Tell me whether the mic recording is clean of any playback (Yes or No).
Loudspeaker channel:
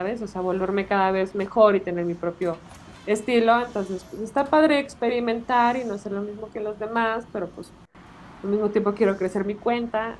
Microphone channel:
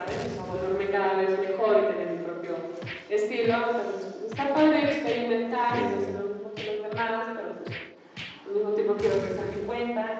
No